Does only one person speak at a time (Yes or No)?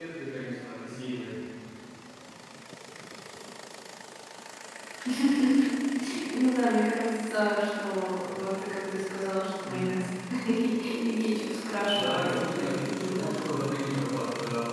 No